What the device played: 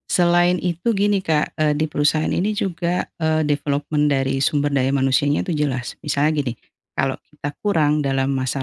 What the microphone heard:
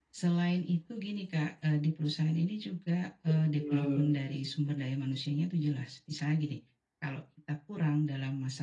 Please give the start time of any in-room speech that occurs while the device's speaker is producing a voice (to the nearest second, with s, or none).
3 s